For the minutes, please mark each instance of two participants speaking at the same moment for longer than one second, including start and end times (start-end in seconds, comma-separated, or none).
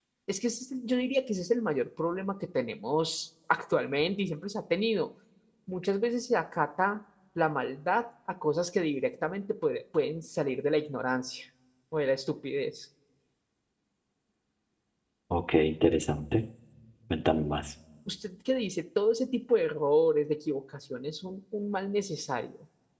none